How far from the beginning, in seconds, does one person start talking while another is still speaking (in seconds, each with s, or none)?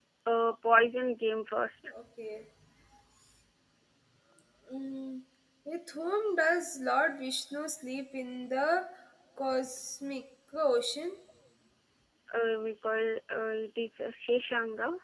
none